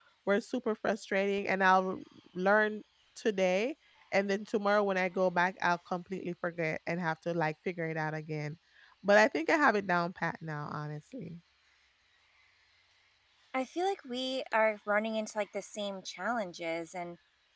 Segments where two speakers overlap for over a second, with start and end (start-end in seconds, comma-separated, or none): none